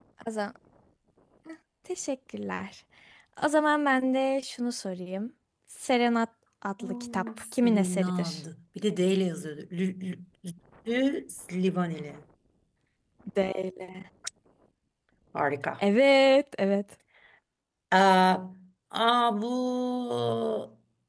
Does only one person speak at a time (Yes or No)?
No